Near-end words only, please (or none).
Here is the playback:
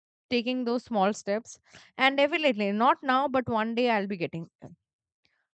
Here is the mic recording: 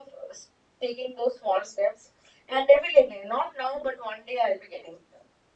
none